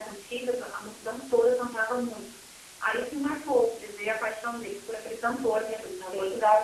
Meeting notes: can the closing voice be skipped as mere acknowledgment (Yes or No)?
Yes